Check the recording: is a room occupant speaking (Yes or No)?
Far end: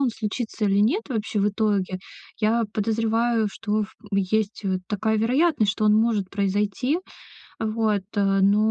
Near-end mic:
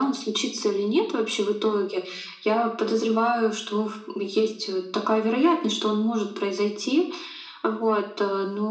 No